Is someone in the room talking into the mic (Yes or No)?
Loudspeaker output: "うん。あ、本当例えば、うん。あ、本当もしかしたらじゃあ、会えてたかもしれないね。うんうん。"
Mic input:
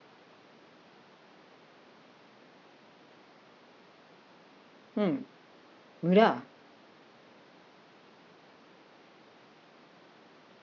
Yes